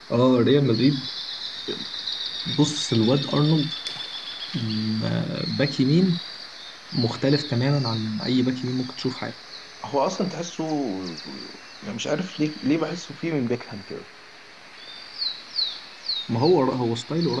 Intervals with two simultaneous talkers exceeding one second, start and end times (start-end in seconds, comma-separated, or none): none